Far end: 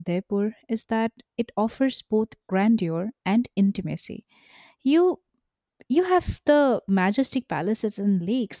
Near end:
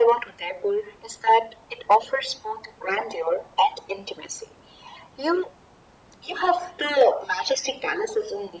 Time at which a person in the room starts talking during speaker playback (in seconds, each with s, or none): none